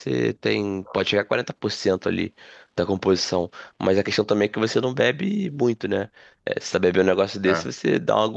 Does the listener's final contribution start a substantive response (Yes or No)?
No